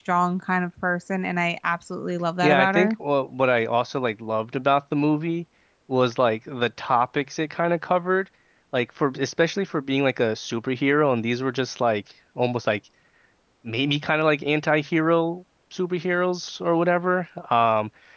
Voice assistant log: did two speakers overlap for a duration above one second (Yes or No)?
No